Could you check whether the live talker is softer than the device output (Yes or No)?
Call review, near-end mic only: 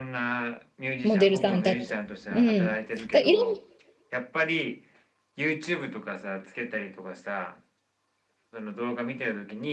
No